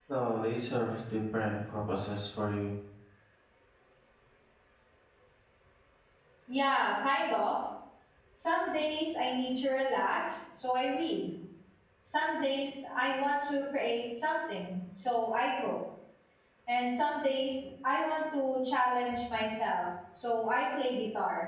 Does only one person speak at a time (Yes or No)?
Yes